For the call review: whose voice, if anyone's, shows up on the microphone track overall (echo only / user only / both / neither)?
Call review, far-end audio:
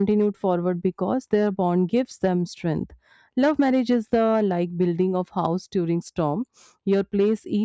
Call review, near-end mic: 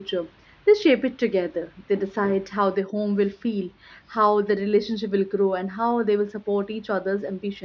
user only